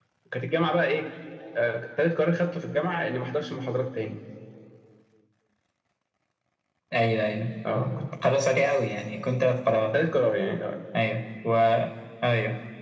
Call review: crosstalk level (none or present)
none